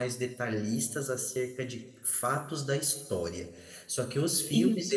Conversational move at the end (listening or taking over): listening